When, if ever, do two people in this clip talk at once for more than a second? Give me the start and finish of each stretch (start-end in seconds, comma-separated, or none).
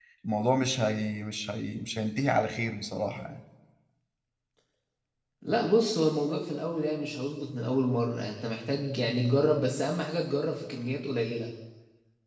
none